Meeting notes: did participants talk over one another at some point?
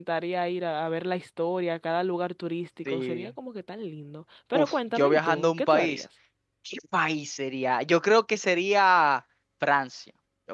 Yes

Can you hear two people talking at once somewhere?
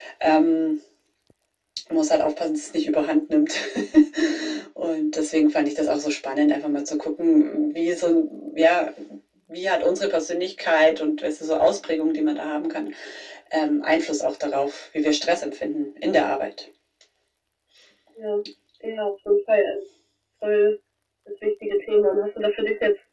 No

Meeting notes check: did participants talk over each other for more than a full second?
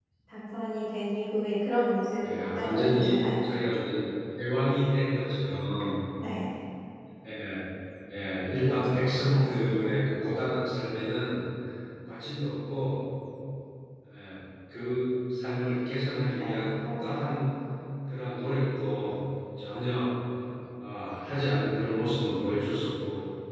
Yes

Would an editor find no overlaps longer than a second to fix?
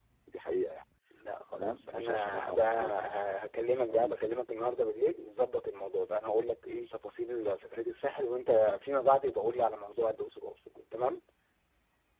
No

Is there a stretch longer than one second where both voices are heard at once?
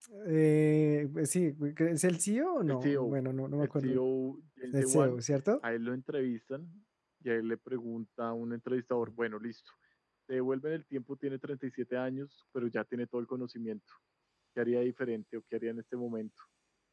No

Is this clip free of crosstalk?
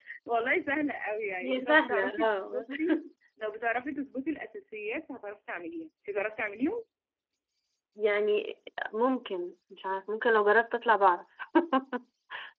No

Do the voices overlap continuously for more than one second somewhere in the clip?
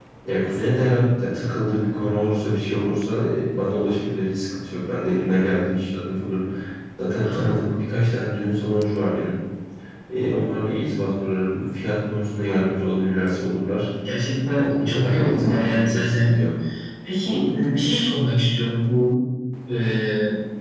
Yes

